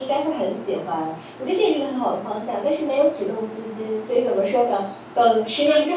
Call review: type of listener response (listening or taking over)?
listening